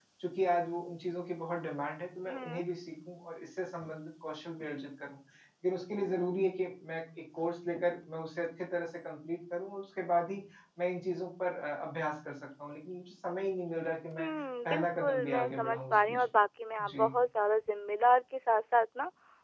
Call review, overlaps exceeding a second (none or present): present